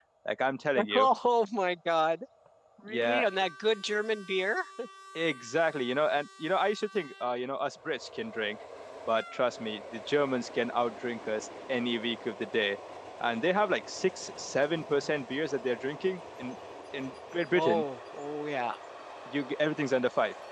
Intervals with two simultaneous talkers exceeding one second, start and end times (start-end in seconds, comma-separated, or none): none